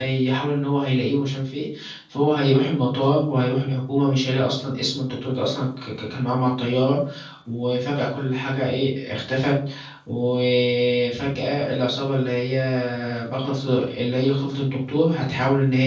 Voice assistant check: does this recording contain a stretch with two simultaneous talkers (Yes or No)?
No